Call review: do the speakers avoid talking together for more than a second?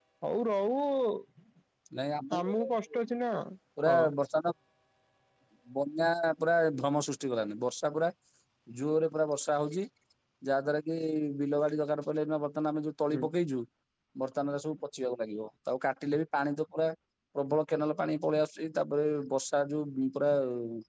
Yes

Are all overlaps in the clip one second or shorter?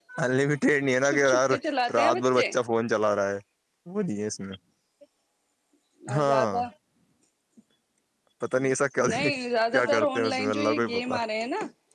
No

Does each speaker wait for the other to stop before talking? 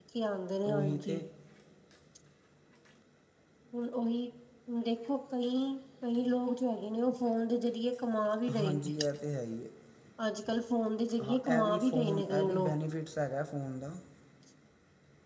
No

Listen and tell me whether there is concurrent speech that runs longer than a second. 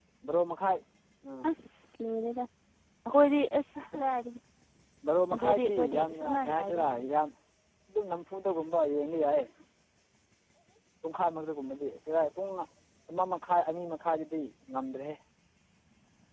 Yes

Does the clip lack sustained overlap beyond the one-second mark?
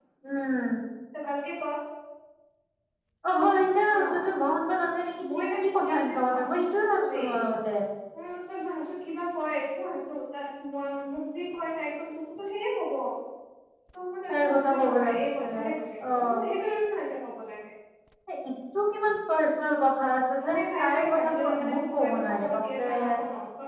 No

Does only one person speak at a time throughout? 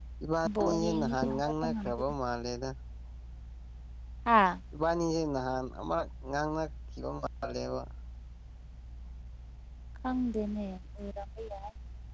No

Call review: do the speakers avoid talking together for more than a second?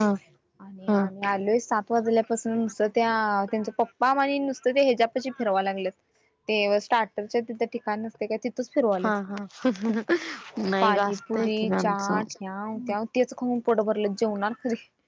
No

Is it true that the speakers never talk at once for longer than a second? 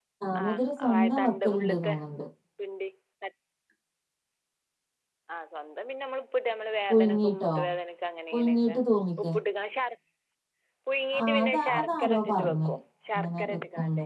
No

